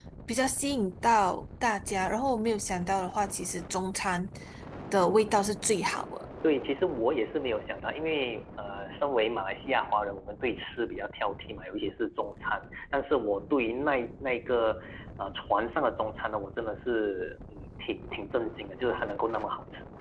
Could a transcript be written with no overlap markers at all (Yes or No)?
Yes